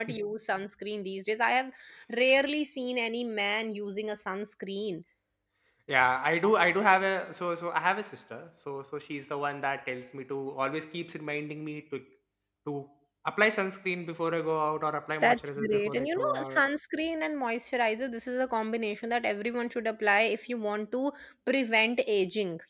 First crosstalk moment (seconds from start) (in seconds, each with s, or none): 15.2 s